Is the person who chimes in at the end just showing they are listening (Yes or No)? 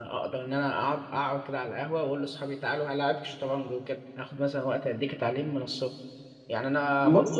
Yes